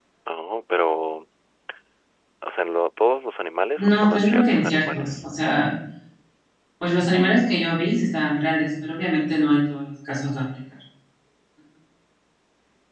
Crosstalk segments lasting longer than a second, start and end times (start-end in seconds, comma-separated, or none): 3.8-5.2